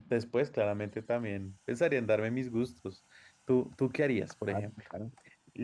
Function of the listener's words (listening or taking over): taking over